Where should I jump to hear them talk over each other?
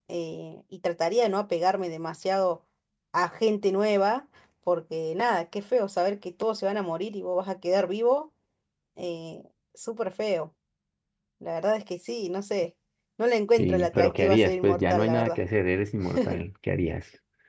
14 s

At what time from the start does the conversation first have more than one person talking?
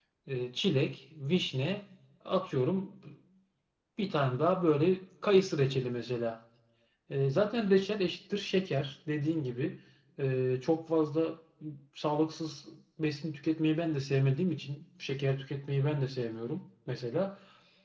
none

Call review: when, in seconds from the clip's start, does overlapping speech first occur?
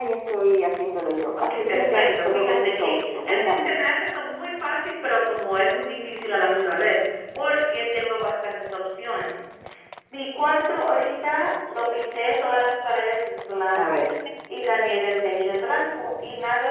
1 s

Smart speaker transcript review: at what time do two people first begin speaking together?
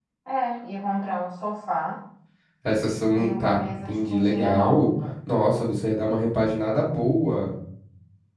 3 s

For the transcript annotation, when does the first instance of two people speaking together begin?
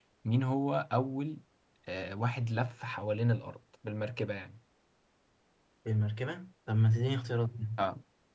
none

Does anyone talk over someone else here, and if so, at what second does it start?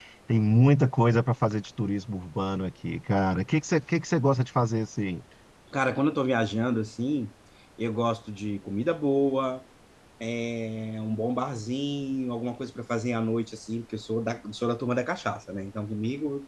none

